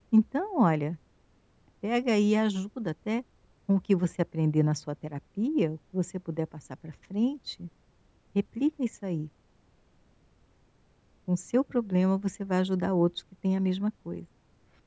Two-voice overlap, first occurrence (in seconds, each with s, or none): none